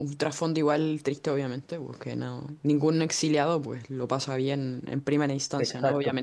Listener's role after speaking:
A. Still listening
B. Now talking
A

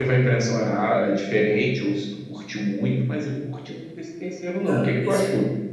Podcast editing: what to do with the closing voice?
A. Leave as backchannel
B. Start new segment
B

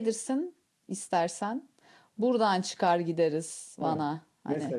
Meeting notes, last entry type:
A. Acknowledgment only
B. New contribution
B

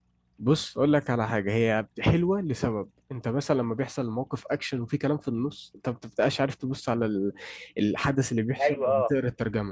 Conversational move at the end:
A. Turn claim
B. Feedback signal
B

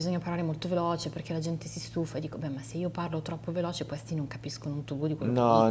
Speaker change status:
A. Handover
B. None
A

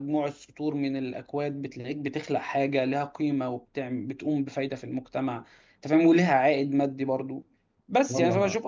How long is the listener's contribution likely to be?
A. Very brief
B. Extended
A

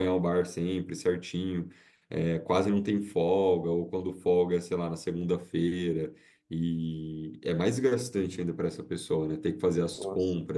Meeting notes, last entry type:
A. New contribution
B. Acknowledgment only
B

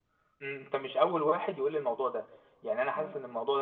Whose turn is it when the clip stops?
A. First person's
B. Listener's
A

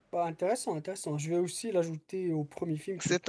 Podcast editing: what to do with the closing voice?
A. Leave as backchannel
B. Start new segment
B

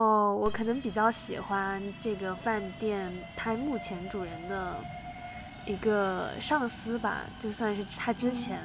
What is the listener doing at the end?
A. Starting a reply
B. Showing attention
B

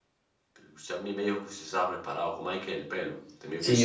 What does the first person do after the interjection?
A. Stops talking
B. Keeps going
A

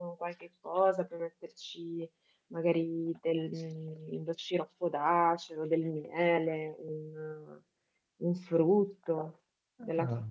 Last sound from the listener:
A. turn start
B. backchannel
B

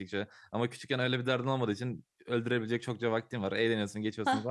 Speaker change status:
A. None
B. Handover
A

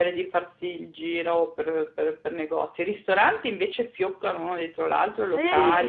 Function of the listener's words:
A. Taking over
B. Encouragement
A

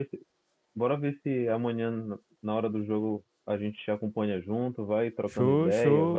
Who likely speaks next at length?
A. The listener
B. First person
A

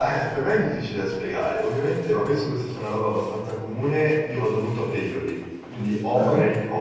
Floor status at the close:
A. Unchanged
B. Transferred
A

